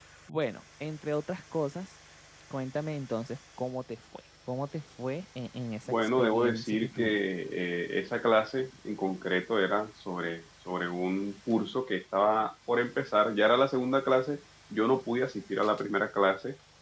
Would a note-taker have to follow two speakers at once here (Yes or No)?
Yes